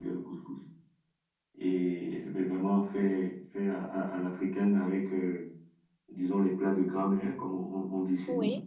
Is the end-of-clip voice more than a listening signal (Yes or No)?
Yes